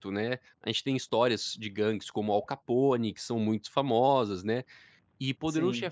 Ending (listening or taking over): listening